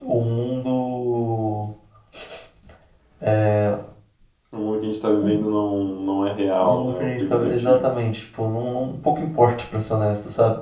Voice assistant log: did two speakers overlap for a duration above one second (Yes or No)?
Yes